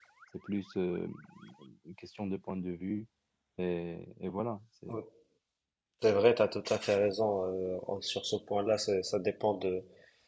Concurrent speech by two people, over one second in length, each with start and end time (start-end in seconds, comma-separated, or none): none